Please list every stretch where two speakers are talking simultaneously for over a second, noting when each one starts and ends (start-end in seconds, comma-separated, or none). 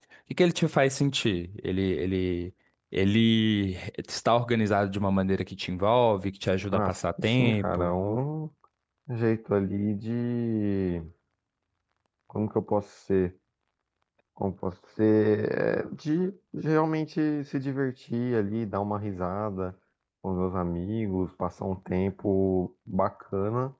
6.7-7.9